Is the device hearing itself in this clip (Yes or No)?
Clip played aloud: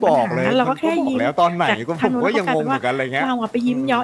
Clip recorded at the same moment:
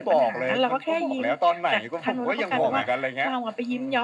Yes